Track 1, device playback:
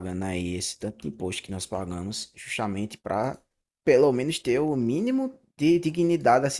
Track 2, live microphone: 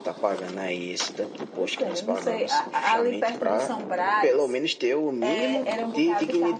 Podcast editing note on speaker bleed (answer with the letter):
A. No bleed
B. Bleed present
B